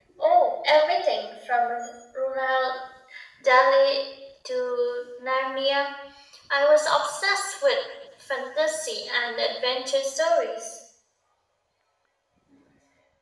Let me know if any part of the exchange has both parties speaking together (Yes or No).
No